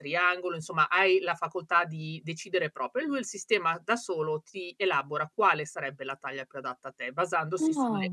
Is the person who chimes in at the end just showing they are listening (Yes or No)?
Yes